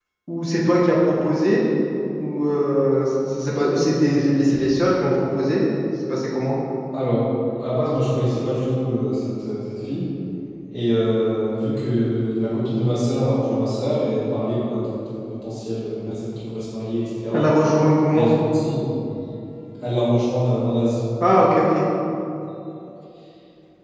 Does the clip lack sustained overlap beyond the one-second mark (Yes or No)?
Yes